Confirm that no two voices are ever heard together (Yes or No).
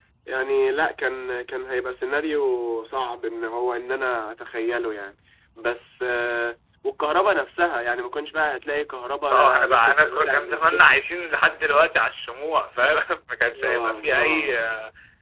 No